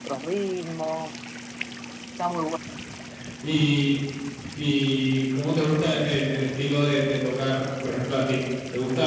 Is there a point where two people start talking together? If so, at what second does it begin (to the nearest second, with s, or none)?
none